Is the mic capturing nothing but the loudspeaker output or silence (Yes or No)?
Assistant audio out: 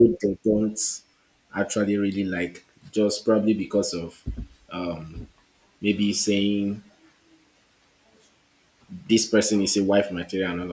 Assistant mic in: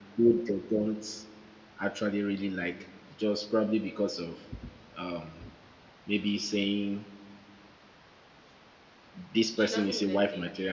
No